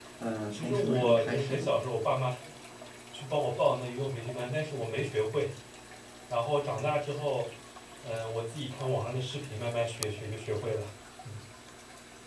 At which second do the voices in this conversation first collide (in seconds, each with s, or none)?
0.5 s